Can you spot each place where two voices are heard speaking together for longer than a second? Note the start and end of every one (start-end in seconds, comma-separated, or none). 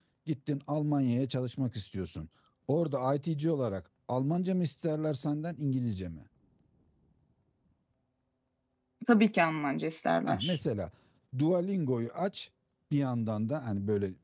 none